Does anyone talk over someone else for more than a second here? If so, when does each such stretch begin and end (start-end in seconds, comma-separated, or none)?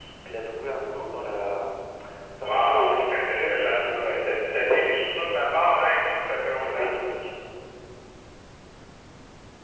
2.4-5.3